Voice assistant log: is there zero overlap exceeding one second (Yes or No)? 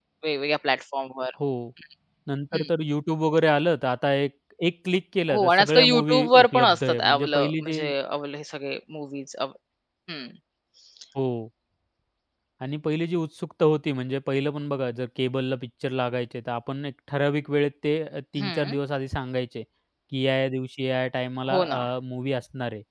No